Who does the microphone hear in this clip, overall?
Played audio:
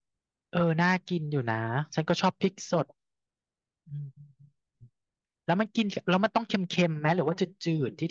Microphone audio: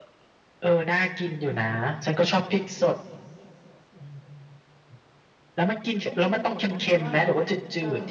both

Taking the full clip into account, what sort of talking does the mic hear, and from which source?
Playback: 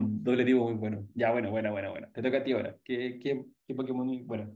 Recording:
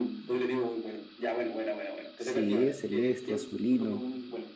both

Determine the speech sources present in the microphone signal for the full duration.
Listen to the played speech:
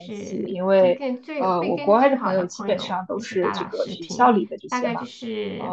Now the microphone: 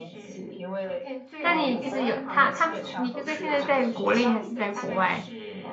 both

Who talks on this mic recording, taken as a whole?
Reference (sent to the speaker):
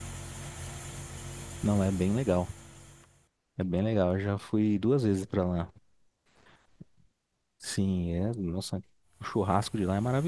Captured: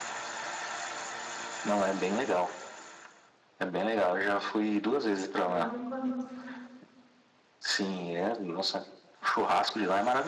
both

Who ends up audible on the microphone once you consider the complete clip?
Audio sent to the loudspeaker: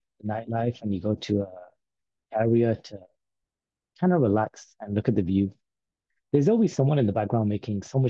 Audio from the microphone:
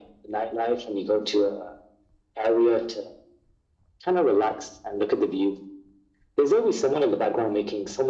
echo only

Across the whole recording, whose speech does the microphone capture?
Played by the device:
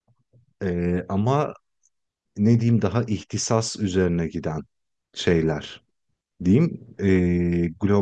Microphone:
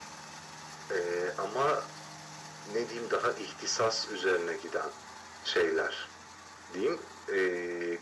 echo only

